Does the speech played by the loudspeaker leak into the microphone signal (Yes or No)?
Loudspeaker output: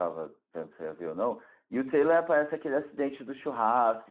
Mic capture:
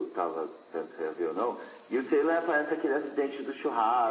Yes